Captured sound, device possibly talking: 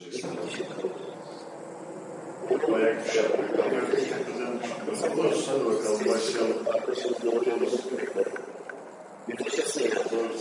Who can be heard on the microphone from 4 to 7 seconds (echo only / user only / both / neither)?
both